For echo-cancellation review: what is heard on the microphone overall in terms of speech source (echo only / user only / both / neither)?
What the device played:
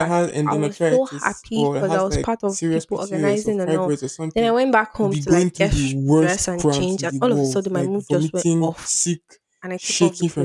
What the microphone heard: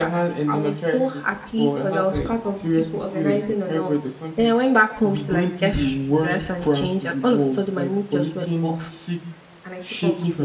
echo only